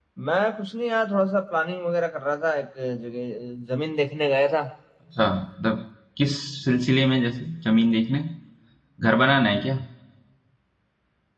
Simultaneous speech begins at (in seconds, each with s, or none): none